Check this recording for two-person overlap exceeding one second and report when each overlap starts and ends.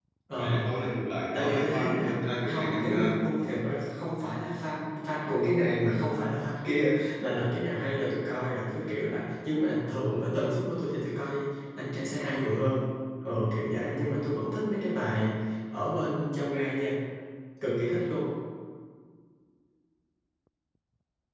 1.3-3.4

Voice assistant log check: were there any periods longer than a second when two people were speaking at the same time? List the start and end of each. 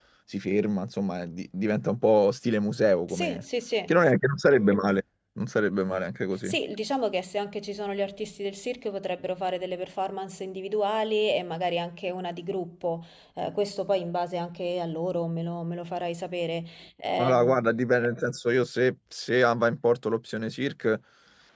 none

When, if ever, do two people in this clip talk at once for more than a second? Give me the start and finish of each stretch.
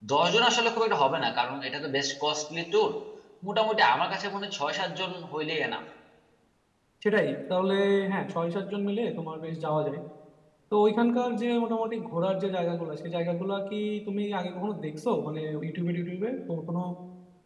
none

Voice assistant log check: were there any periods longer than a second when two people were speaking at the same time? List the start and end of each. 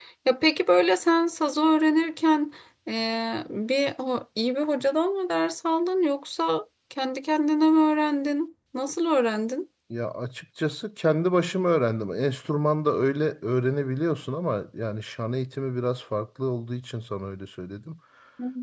none

